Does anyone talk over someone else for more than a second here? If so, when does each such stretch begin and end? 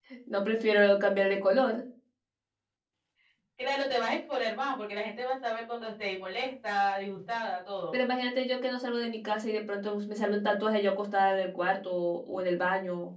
none

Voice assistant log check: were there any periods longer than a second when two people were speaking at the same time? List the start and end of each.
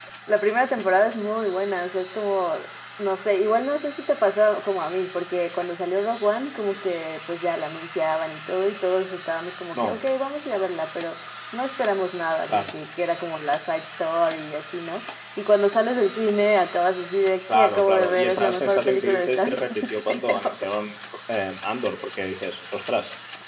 17.5-20.4

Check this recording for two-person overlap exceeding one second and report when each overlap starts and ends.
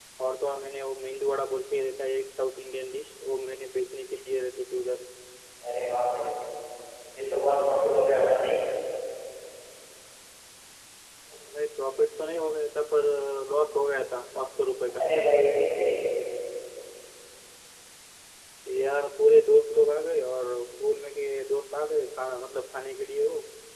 none

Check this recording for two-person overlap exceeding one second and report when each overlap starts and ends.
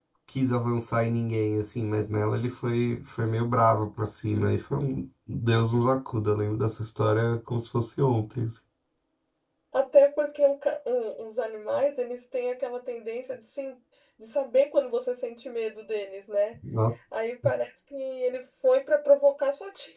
none

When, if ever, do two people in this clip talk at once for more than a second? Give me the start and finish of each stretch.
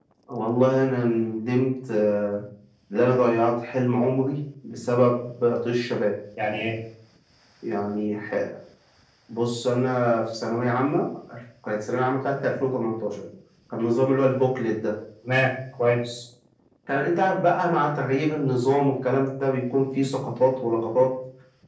none

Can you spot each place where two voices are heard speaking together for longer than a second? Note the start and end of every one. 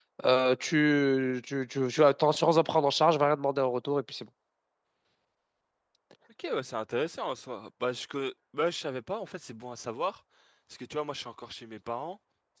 none

